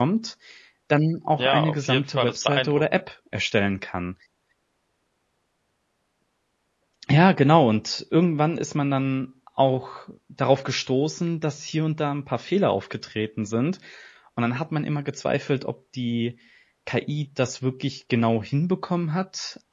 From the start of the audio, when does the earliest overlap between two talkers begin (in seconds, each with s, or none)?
1.4 s